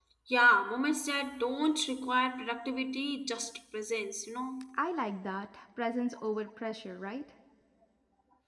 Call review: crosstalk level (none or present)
none